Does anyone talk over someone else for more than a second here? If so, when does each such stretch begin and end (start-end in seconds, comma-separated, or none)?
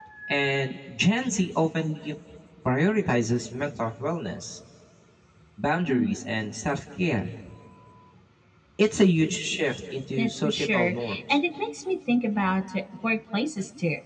10.2-11.4